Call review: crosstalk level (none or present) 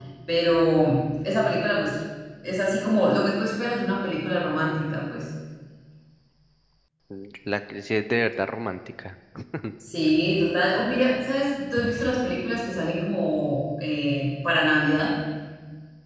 none